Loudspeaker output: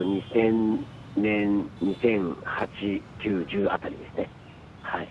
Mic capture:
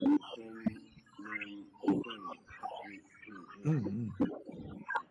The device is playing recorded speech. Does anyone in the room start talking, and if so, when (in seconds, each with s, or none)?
3.6 s